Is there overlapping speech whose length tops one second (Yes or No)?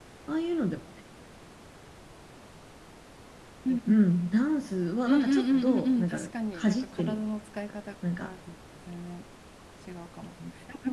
Yes